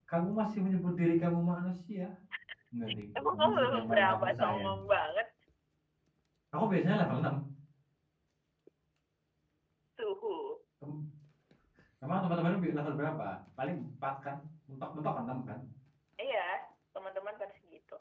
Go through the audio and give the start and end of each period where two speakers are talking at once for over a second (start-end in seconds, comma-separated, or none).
3.2-4.8